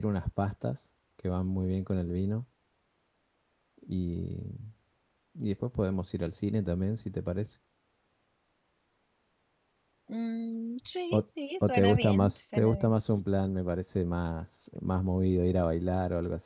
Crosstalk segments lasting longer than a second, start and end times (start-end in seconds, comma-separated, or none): 11.6-12.9